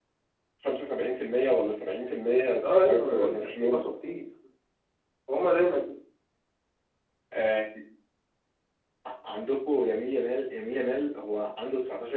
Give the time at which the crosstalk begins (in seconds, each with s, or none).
2.6 s